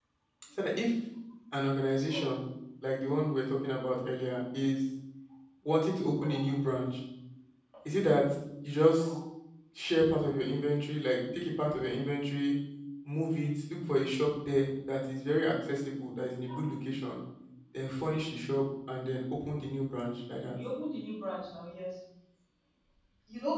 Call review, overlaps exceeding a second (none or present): none